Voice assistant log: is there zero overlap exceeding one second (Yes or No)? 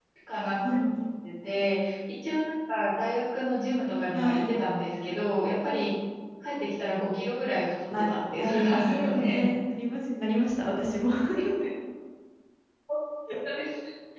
No